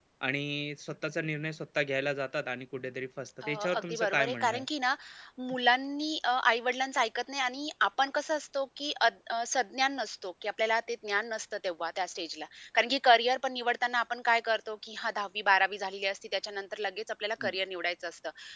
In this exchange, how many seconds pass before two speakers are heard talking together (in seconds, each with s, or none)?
3.4 s